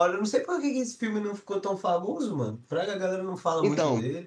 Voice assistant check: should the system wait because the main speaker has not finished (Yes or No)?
No